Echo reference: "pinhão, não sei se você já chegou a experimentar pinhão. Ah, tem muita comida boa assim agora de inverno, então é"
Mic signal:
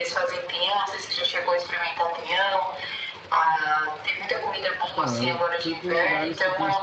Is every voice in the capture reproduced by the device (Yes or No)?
No